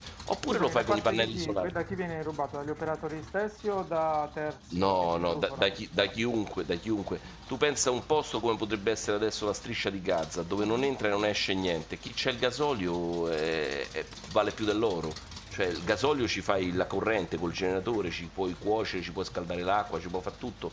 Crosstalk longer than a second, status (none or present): present